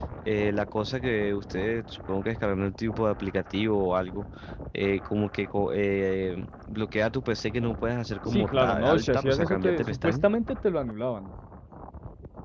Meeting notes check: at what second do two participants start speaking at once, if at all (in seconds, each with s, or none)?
8.3 s